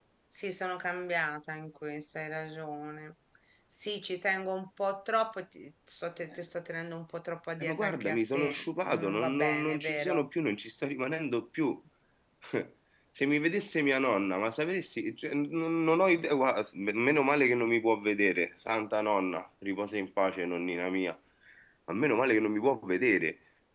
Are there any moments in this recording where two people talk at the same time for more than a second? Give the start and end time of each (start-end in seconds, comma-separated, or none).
7.6-10.3